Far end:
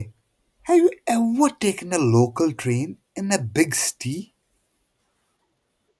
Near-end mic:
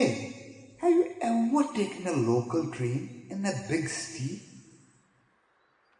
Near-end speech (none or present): none